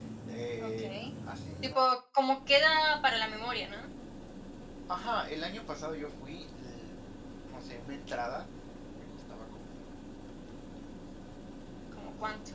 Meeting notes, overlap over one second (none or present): none